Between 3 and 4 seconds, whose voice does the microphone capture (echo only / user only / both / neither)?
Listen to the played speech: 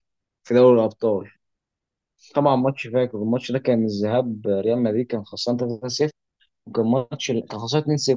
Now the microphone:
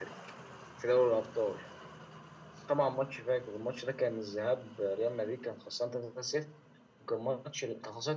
echo only